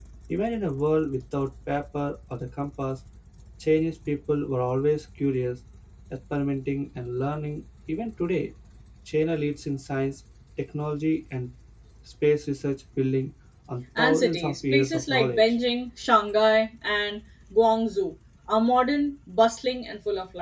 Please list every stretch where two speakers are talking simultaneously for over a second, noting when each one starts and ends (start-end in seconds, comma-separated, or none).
14.0-15.4